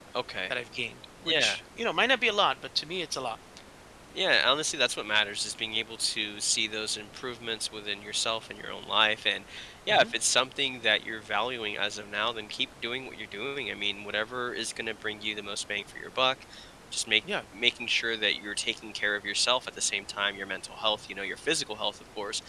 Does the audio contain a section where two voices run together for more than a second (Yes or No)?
No